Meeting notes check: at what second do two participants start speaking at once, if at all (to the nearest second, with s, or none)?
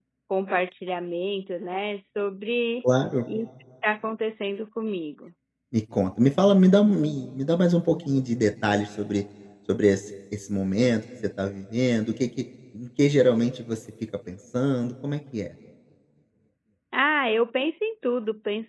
none